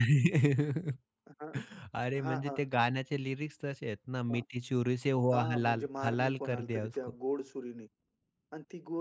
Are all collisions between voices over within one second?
No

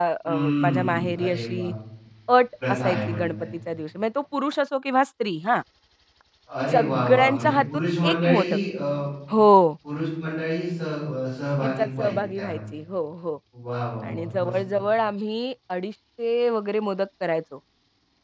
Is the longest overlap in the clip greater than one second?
Yes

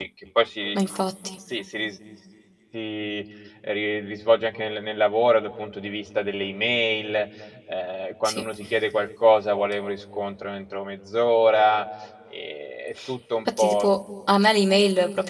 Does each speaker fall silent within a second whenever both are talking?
Yes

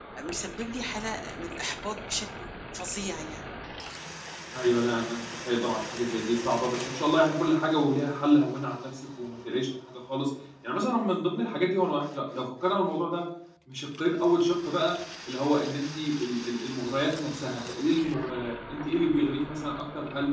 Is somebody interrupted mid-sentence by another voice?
No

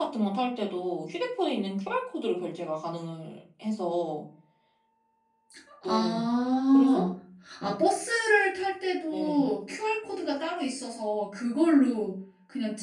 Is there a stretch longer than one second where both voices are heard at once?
No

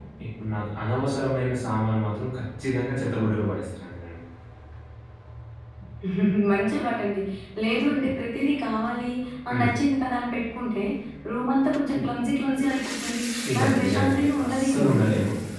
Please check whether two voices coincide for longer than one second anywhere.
Yes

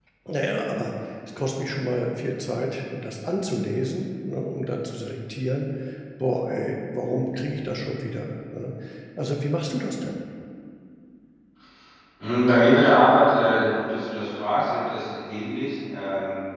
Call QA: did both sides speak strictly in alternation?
Yes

